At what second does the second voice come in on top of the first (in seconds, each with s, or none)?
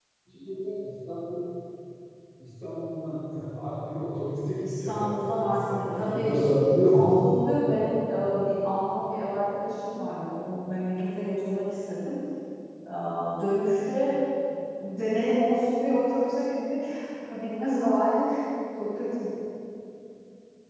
4.6 s